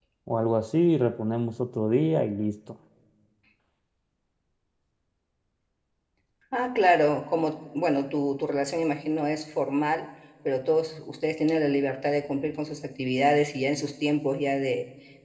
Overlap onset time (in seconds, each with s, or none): none